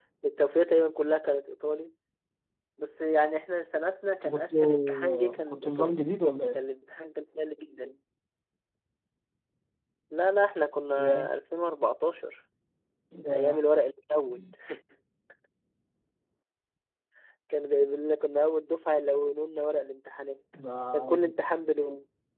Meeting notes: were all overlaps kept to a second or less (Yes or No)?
No